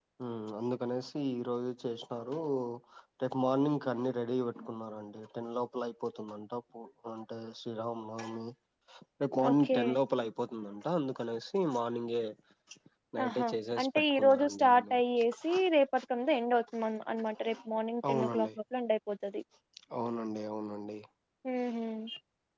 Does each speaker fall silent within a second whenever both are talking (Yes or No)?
No